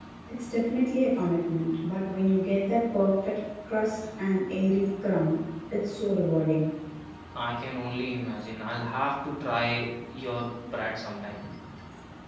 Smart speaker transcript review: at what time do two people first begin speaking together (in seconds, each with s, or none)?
none